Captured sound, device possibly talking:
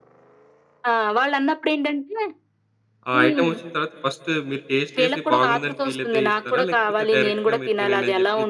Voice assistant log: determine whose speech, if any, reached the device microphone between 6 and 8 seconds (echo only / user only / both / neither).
both